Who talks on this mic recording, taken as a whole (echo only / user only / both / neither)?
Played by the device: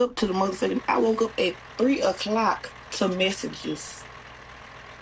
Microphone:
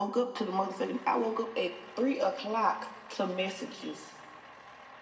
echo only